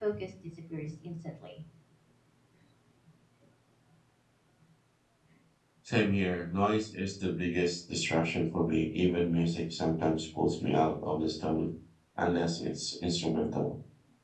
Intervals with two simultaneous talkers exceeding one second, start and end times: none

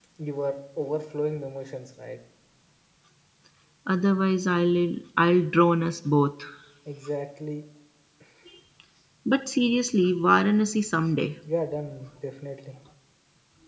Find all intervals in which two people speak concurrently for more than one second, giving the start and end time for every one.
none

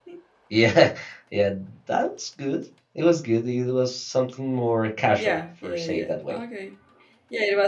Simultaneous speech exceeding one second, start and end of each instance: 5.2-6.4

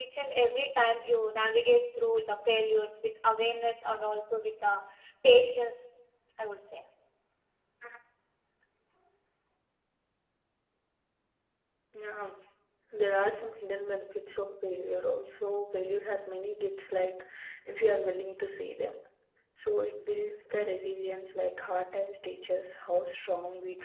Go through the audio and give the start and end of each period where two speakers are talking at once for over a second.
none

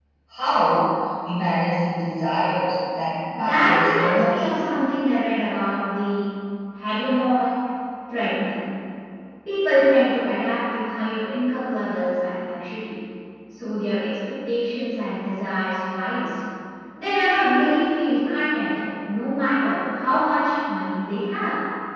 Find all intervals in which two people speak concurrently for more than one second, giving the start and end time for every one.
3.4-4.6

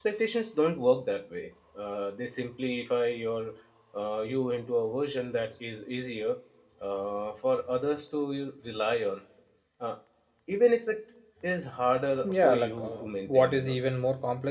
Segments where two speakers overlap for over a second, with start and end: 12.2-13.8

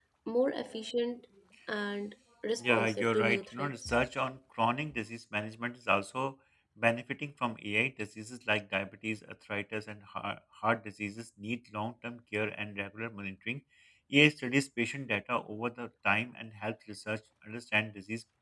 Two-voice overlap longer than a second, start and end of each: 2.6-3.9

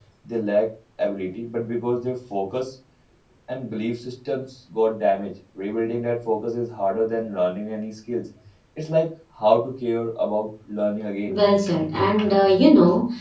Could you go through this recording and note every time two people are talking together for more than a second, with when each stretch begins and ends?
none

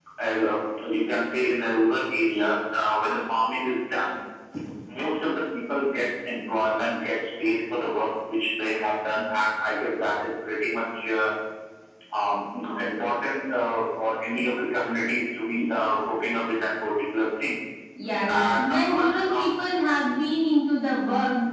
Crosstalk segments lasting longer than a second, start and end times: 18.3-19.5

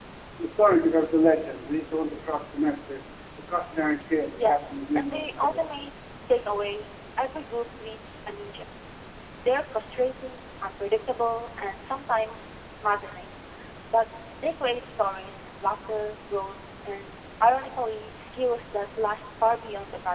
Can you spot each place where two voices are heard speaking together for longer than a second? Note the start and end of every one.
4.4-5.7

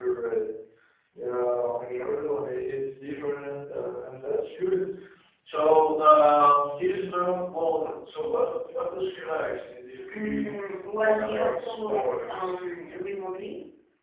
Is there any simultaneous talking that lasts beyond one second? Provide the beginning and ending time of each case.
11.0-12.6

